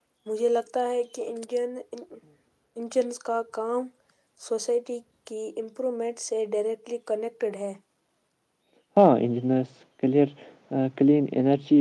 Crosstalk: none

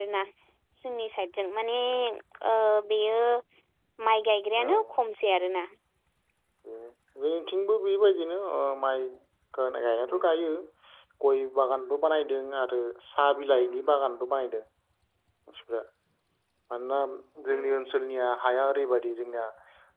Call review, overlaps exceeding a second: none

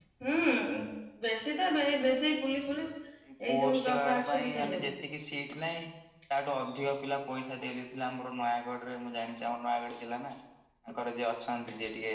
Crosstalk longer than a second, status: present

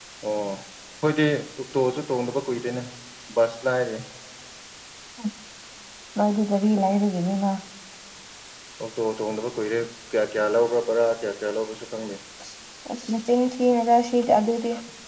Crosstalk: none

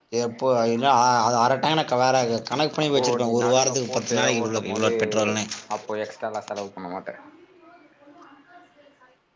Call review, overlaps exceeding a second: present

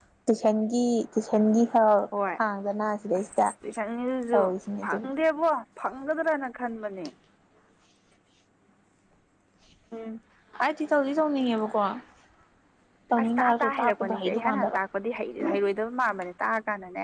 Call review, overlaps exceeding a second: present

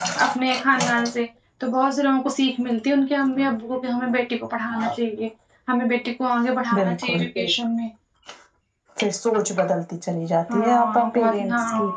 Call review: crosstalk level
present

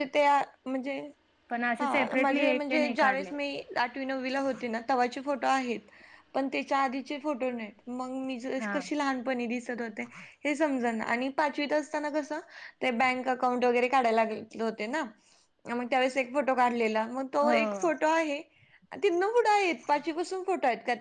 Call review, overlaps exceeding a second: present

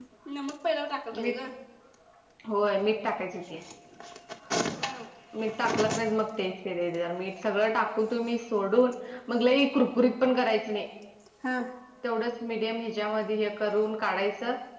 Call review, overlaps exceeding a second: none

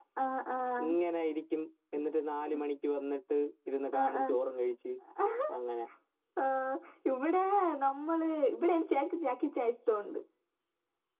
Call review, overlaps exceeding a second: none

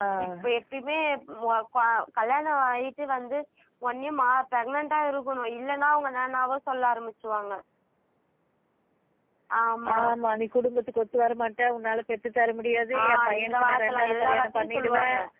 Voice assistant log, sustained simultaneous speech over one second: present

